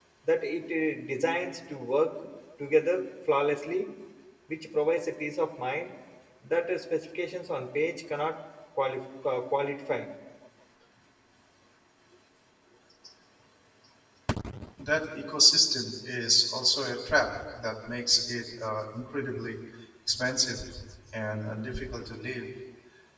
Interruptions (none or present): none